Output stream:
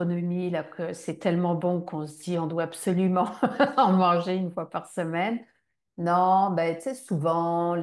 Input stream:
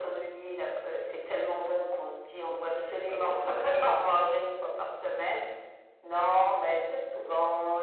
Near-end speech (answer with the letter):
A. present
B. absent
A